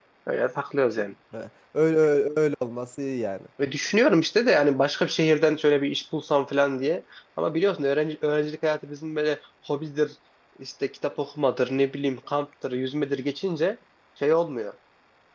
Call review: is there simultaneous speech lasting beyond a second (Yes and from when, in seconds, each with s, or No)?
No